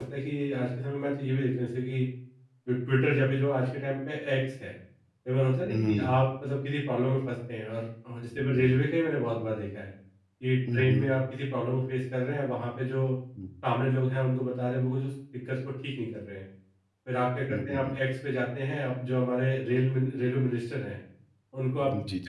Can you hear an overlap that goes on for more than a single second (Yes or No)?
No